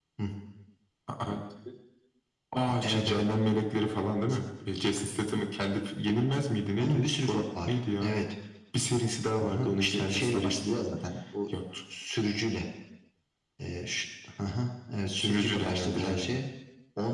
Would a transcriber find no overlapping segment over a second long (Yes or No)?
No